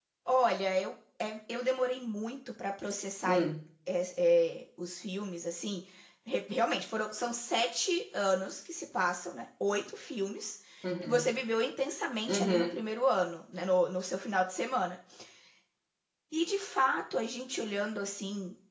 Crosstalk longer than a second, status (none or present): none